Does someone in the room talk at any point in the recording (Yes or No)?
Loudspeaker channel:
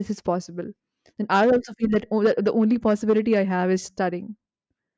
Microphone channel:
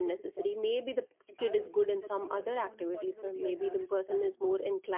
Yes